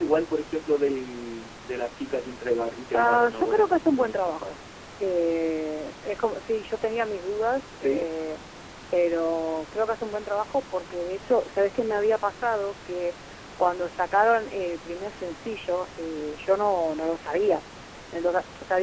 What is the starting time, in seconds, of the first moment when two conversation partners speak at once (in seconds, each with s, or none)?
2.9 s